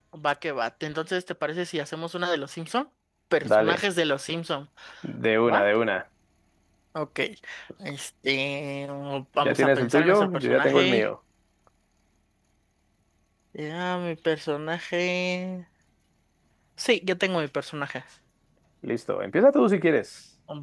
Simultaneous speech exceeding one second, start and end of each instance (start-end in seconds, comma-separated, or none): 9.4-11.1